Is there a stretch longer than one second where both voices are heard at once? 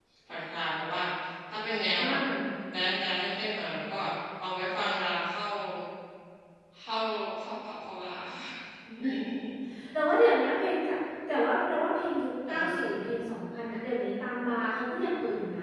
No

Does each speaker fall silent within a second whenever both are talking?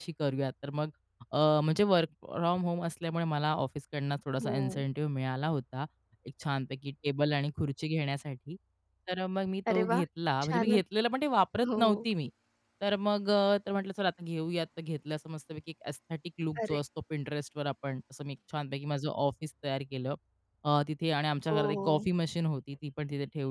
Yes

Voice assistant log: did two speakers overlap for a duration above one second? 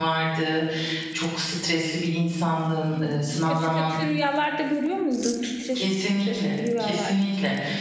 Yes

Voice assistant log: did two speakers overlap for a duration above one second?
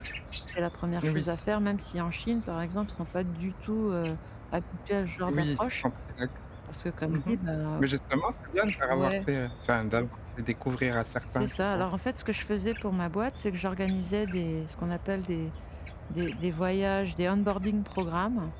No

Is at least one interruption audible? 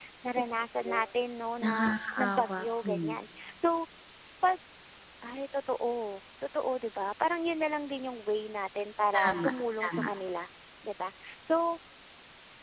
Yes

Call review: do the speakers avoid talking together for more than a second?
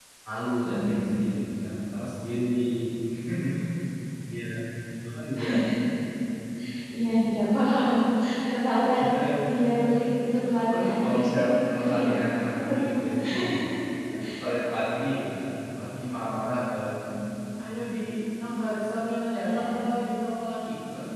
No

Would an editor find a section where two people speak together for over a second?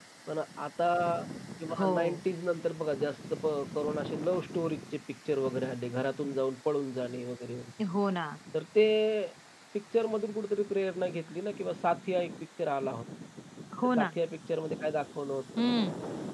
No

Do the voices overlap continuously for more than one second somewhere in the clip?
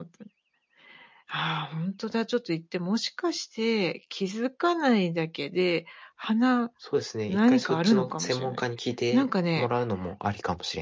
Yes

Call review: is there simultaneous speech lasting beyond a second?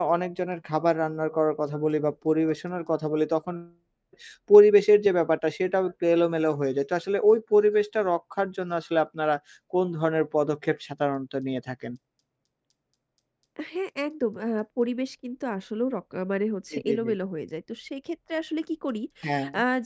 No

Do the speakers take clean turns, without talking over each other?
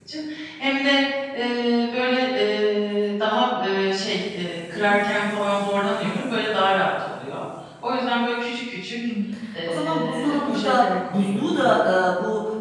No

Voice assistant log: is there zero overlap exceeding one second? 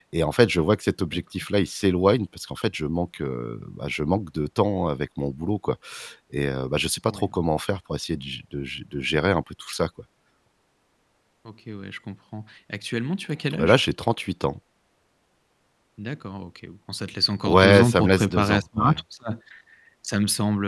No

